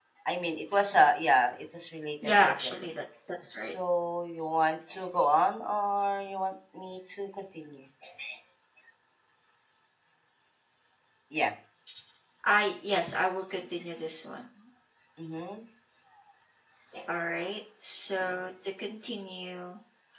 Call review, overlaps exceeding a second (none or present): none